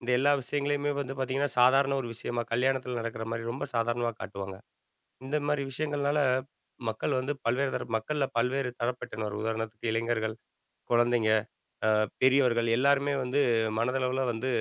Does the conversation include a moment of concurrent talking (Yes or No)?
No